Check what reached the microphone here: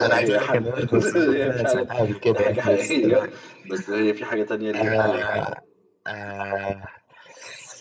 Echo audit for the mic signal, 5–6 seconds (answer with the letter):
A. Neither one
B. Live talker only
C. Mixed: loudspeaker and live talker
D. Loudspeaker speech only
C